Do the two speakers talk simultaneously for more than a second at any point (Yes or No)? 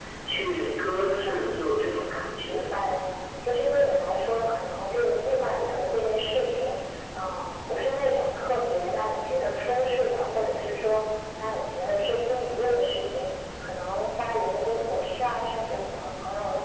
No